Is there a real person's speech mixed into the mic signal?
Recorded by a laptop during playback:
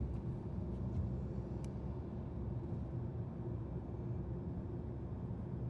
No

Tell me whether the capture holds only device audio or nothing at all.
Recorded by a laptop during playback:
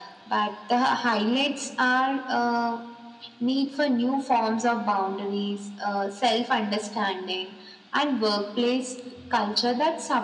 Yes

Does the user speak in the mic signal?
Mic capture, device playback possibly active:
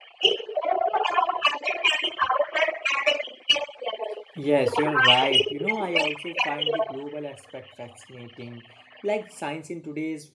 Yes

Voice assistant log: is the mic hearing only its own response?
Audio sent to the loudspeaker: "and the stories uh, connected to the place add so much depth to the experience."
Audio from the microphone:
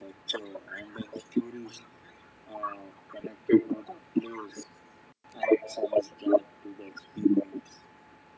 Yes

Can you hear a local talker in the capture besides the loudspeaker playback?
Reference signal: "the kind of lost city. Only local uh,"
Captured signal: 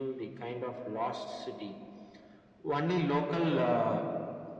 No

